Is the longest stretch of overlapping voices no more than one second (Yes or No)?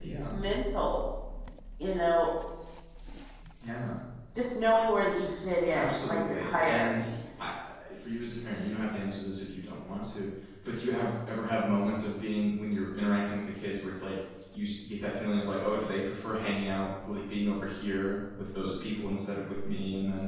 No